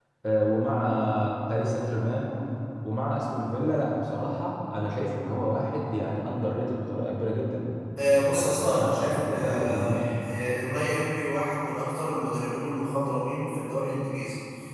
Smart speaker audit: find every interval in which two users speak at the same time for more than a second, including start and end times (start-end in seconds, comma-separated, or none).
8.3-9.9